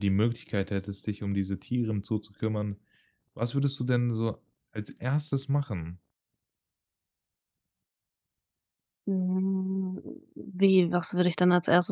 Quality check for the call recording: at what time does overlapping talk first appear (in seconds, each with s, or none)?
none